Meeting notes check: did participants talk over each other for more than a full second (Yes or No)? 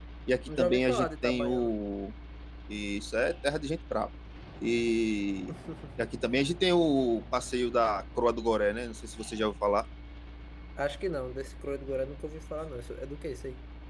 Yes